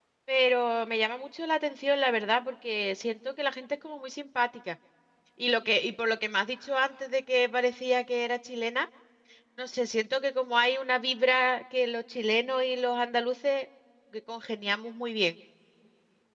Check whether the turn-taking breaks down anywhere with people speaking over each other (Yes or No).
No